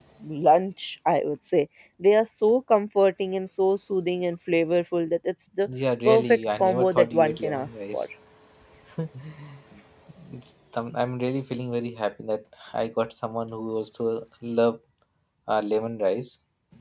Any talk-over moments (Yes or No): Yes